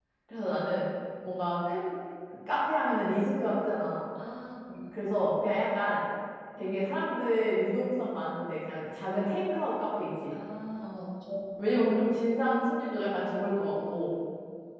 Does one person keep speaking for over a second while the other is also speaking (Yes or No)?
No